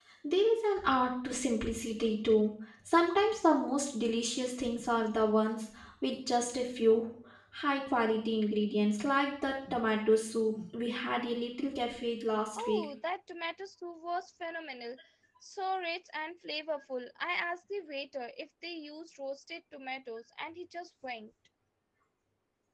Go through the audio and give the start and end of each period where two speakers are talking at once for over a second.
none

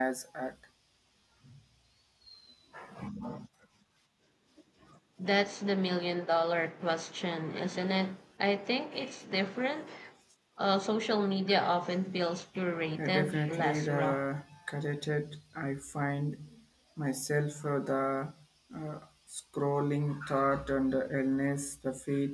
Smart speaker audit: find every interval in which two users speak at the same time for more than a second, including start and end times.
13.0-14.2

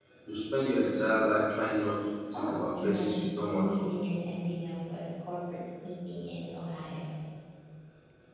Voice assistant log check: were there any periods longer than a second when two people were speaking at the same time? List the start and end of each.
2.3-3.9

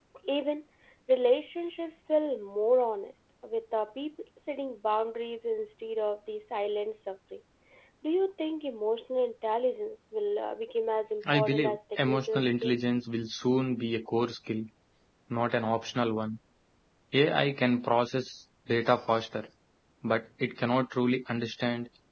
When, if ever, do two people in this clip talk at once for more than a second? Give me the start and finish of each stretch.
11.3-12.7

